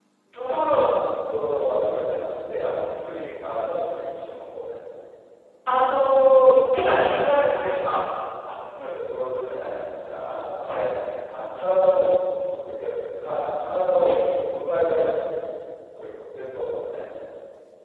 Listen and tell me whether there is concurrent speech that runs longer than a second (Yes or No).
No